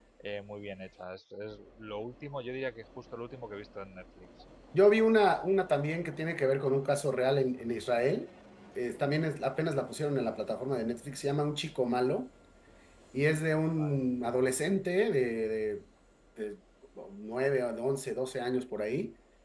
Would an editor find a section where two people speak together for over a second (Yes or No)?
No